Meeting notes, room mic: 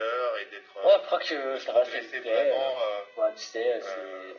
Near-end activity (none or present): none